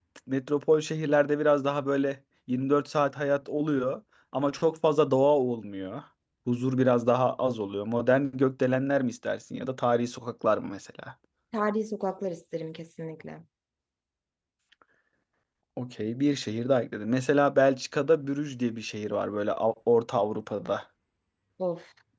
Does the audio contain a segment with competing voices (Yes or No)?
No